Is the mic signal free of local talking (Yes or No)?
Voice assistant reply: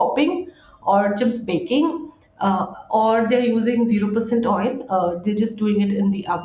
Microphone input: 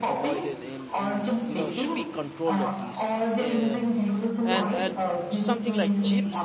No